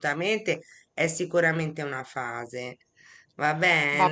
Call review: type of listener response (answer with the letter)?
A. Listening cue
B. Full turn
B